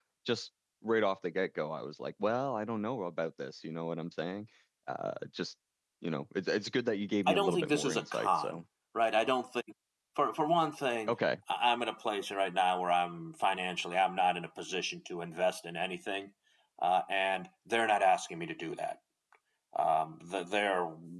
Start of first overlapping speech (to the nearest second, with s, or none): 7 s